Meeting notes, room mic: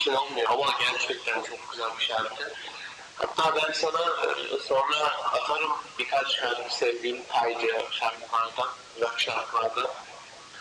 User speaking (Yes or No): No